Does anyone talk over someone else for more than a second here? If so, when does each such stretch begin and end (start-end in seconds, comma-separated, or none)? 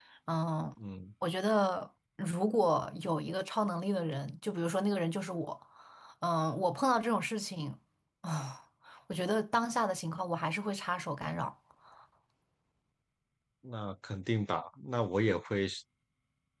none